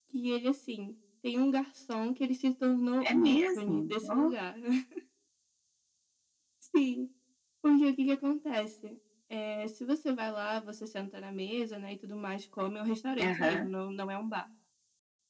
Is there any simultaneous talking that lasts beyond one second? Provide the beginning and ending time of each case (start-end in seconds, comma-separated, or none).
3.0-4.3